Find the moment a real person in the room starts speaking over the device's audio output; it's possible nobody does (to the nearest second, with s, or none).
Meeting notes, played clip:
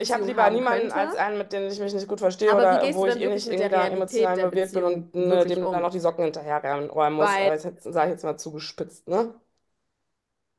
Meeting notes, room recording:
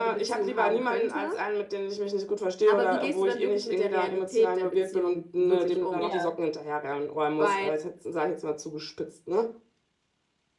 6 s